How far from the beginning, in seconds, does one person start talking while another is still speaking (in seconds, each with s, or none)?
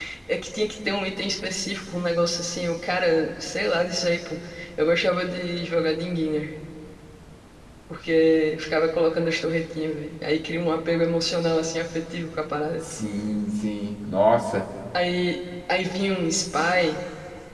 none